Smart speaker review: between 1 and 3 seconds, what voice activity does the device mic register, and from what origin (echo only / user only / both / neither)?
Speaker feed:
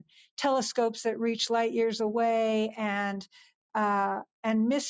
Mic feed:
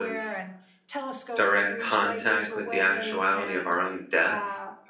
both